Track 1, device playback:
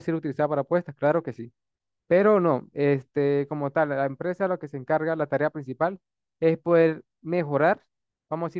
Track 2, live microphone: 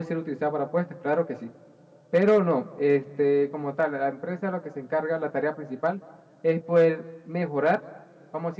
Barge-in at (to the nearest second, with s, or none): none